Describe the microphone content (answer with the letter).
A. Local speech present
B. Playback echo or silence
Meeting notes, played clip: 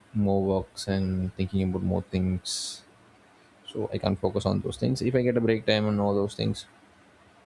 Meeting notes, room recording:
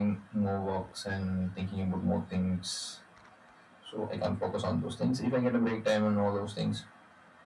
B